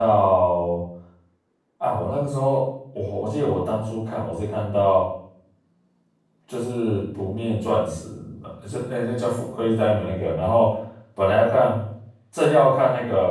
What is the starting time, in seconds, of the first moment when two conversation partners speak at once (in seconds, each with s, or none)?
none